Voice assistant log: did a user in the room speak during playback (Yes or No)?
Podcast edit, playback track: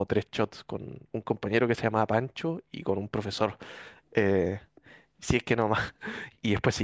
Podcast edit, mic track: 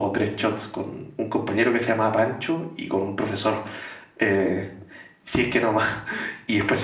No